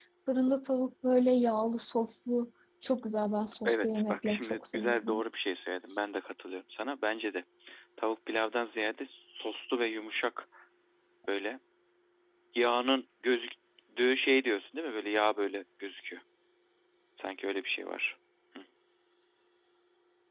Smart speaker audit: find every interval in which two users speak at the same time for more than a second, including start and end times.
3.6-5.2

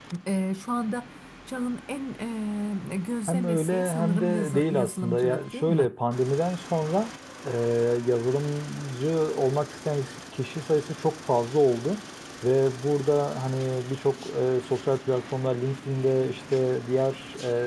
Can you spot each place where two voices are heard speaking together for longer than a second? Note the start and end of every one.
3.3-5.9

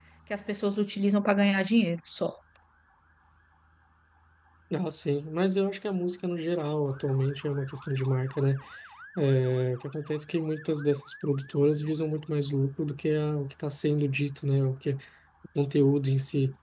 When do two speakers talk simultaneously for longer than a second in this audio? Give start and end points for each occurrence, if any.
none

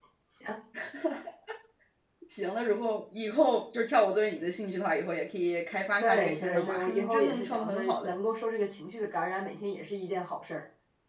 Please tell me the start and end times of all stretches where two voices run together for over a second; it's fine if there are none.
6.0-8.1

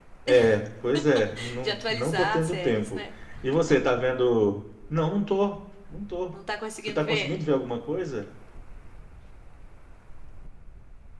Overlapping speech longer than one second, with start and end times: 1.6-3.0

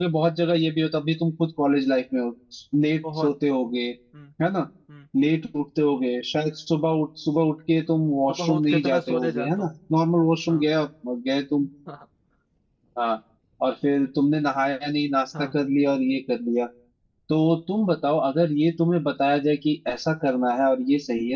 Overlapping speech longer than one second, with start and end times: 8.3-9.7

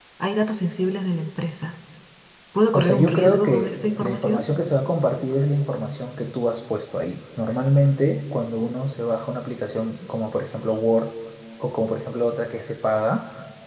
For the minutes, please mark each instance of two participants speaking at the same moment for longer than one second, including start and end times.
2.7-4.4

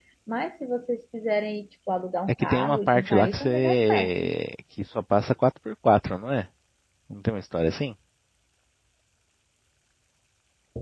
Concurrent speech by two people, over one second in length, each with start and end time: 2.3-4.3

